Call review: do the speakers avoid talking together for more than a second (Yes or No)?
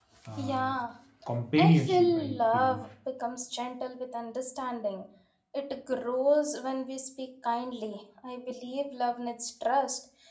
No